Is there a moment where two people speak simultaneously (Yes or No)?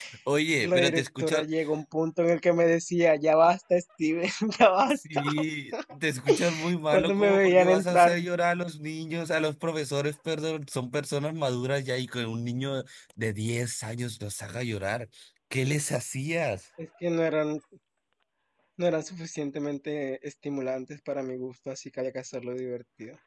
Yes